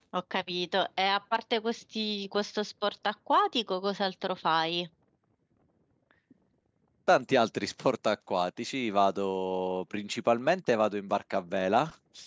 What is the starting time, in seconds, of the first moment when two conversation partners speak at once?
none

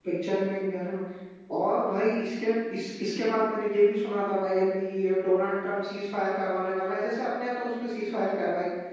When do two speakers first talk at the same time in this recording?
none

